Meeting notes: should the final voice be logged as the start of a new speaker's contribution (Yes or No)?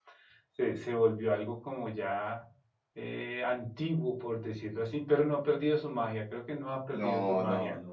Yes